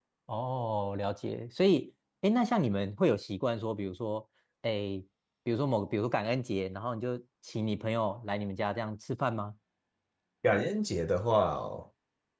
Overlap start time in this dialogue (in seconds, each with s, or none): none